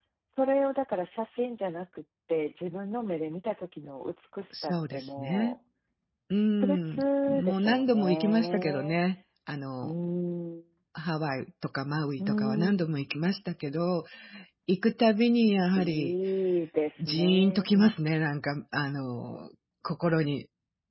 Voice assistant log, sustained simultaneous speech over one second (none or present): present